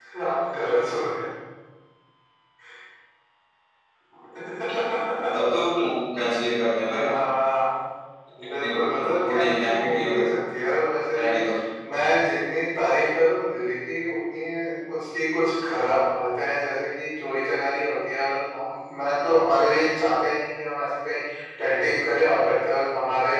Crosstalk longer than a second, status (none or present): present